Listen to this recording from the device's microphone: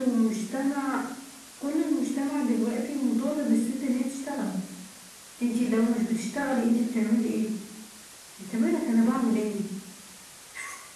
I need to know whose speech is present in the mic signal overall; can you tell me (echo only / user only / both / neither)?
echo only